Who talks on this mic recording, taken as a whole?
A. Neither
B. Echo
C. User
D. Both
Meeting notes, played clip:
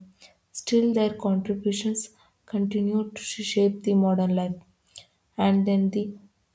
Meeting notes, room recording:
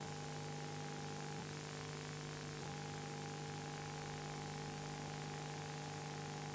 A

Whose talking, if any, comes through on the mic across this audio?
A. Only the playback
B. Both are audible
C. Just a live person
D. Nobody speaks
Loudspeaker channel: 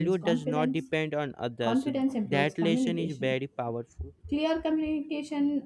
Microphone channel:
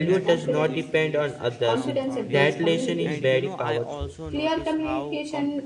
B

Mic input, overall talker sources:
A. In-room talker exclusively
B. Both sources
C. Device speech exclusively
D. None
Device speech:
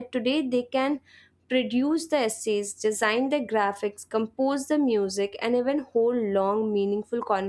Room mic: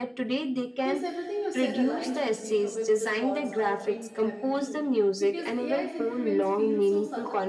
B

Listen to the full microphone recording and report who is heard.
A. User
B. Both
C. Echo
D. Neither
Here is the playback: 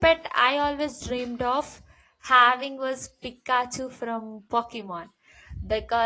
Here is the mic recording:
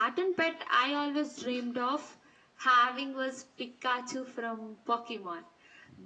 C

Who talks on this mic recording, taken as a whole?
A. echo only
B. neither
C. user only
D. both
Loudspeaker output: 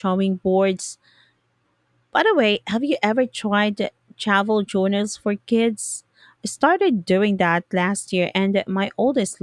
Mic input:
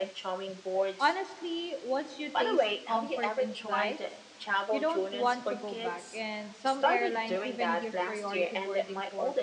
D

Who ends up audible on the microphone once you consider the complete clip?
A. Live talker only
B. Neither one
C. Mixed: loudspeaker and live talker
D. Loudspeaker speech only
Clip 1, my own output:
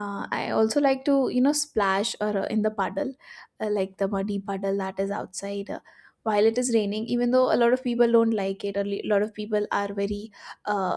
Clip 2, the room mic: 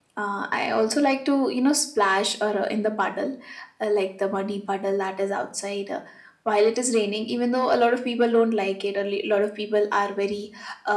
D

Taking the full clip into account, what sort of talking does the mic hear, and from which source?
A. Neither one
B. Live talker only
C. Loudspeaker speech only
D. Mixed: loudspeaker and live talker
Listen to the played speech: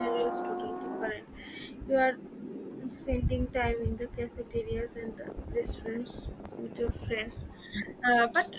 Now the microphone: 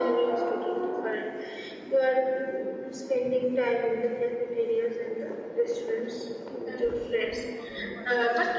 D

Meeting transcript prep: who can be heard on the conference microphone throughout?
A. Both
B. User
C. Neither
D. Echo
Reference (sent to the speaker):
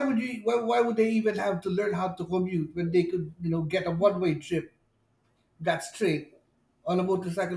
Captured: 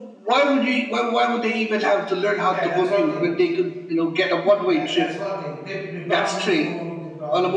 A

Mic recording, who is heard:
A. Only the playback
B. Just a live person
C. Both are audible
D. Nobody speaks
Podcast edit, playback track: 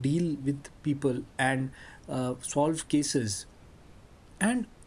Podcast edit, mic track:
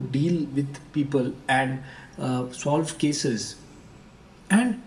A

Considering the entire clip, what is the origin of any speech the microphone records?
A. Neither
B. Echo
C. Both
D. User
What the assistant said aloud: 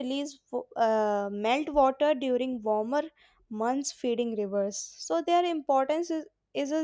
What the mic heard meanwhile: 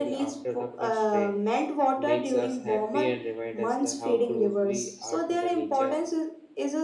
C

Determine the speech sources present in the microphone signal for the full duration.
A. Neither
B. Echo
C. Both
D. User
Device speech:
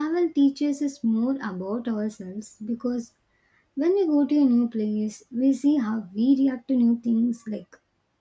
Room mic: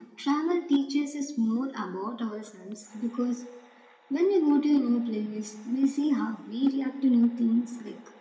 B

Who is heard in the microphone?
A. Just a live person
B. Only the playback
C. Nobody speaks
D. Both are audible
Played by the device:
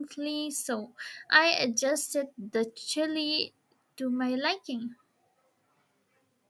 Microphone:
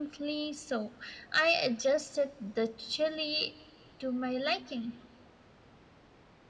B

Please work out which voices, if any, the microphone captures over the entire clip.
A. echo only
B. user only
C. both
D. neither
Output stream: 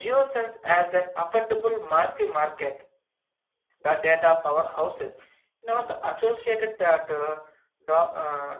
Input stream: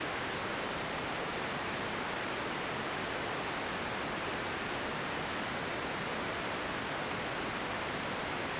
D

